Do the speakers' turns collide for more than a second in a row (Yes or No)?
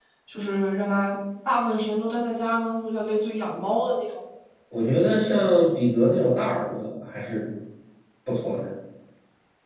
No